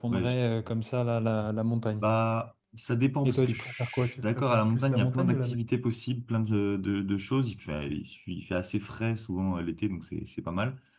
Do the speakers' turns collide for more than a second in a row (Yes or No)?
Yes